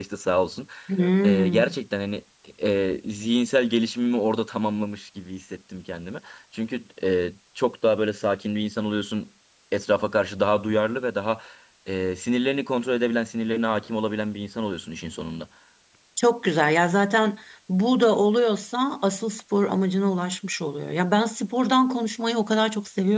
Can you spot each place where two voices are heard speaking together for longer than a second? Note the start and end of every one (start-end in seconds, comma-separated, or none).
none